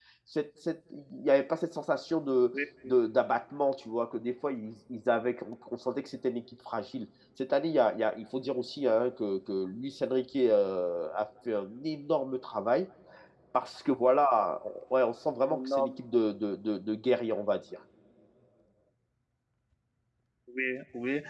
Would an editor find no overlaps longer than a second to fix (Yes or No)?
Yes